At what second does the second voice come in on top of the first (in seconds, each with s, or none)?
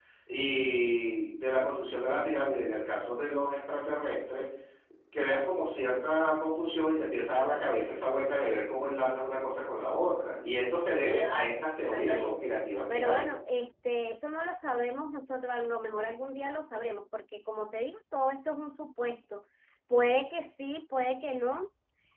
11.2 s